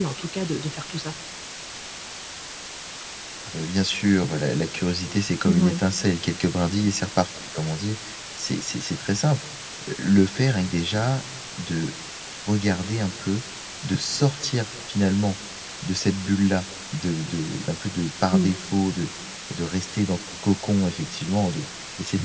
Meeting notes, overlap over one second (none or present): none